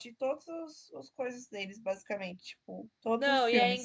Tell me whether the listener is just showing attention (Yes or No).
No